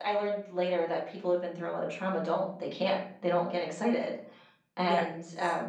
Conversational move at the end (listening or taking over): listening